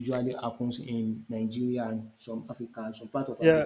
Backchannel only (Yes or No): No